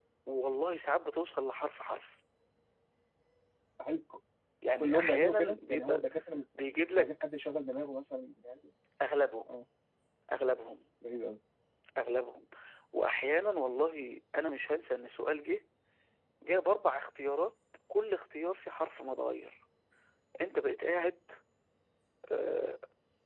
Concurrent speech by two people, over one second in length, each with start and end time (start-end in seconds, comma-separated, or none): 4.8-6.0